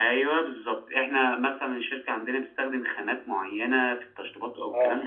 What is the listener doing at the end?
listening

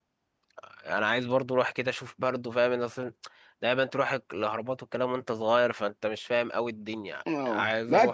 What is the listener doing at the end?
taking over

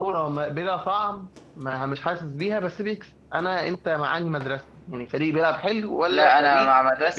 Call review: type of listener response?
taking over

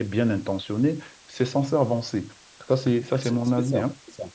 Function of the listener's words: taking over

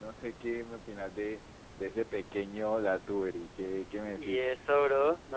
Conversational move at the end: taking over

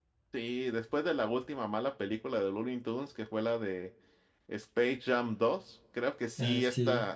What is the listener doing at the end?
listening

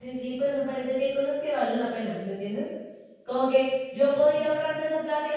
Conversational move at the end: listening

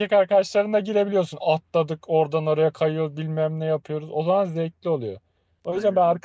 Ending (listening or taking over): listening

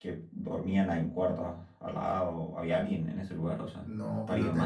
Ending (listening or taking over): taking over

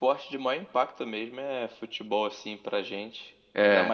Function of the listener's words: listening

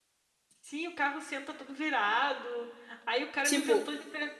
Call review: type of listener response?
listening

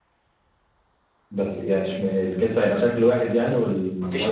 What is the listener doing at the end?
taking over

